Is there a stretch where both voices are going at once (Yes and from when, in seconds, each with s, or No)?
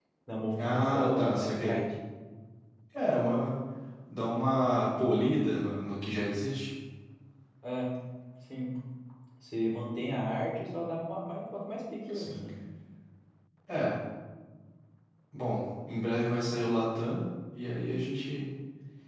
Yes, from 0.6 s